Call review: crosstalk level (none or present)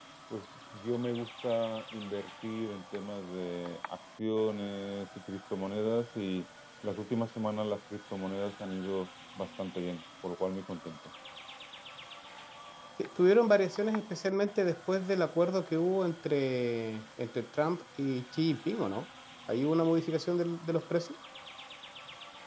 none